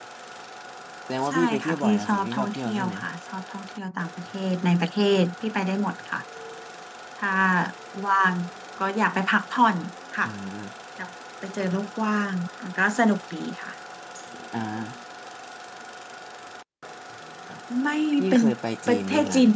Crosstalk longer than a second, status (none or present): present